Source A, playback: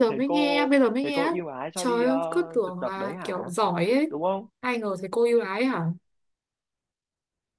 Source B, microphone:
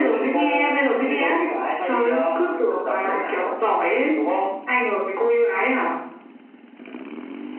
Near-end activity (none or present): none